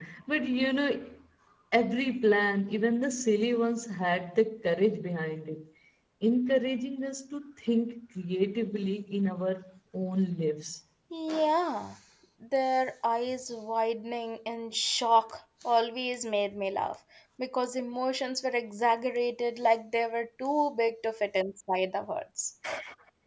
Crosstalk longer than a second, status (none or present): none